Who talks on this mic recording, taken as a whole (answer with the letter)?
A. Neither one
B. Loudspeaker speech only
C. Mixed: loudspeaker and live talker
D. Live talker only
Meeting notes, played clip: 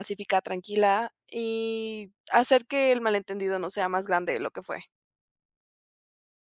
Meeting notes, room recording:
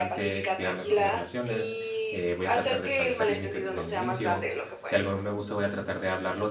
C